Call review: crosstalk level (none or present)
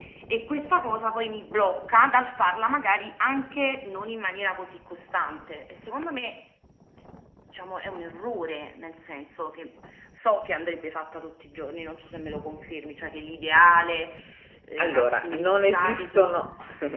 present